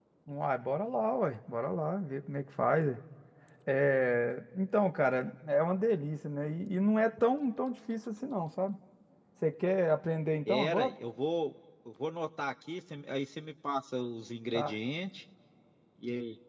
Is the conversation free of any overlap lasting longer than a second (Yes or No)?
Yes